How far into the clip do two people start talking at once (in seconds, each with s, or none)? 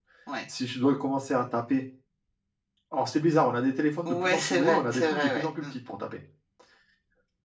4.0 s